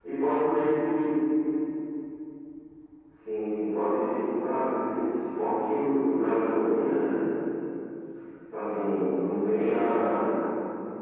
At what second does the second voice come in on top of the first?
none

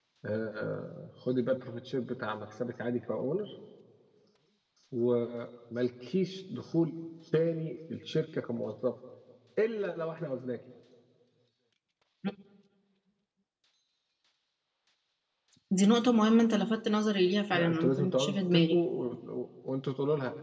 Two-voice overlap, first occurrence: 17.5 s

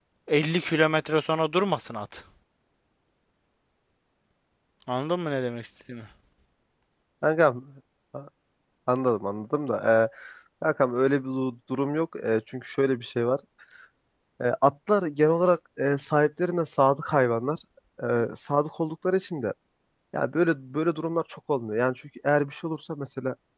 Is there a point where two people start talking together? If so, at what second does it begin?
none

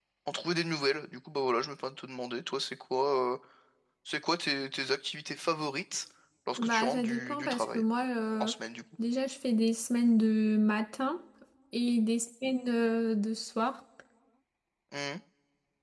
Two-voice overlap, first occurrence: 6.6 s

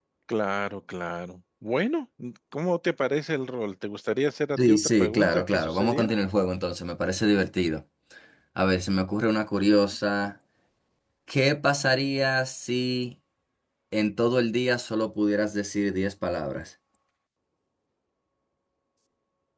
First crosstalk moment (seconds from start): 4.6 s

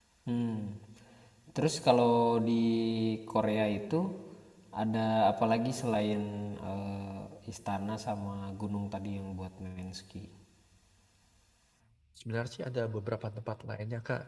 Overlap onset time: none

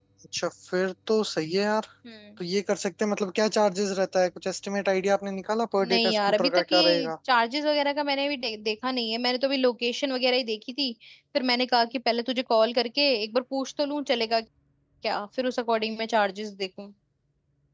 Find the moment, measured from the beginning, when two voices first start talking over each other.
5.8 s

